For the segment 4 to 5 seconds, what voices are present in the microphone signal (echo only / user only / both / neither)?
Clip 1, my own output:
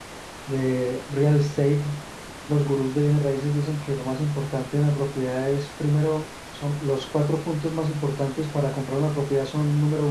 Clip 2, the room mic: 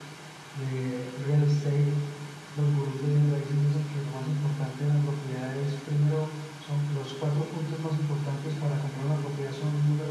echo only